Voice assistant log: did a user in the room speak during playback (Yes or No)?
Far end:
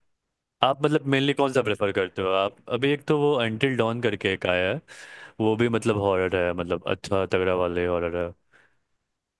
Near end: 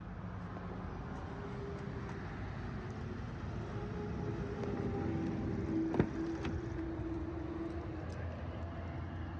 No